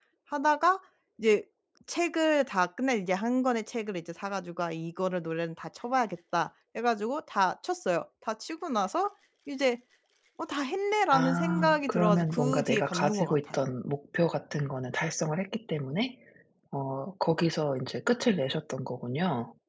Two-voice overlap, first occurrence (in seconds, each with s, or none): 11.1 s